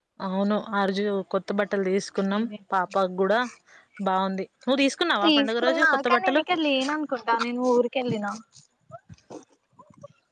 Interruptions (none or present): present